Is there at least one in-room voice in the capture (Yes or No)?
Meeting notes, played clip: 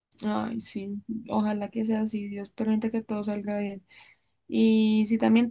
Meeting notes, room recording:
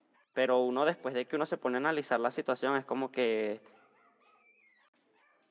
Yes